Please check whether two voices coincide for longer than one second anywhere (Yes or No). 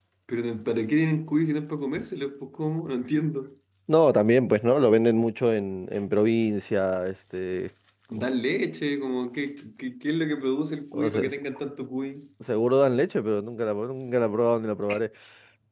No